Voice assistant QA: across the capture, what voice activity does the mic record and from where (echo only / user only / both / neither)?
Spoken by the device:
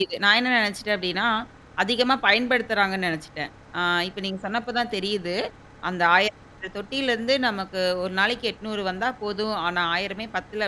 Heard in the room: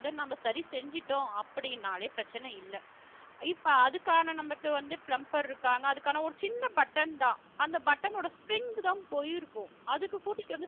user only